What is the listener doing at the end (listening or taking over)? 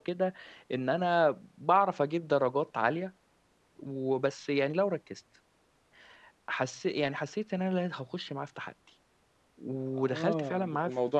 taking over